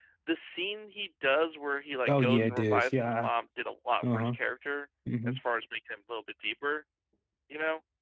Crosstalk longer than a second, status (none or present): present